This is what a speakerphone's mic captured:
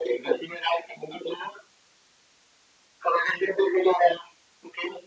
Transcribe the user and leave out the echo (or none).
none